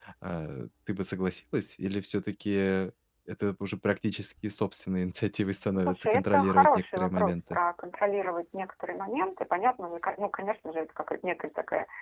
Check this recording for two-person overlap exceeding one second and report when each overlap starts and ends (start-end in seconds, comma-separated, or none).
5.7-7.6